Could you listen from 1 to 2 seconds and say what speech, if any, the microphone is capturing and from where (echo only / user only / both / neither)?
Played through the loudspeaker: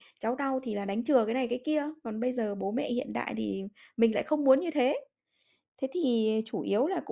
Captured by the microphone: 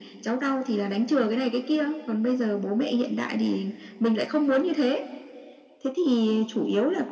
echo only